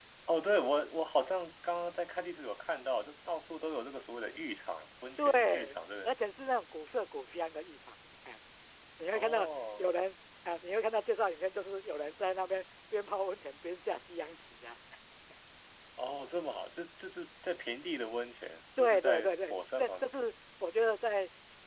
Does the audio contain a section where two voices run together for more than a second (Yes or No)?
Yes